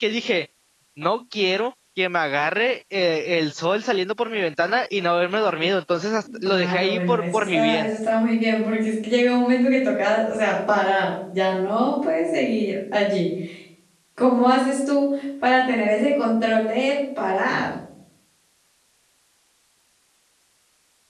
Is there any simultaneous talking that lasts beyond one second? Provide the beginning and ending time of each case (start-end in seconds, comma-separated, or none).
6.4-7.9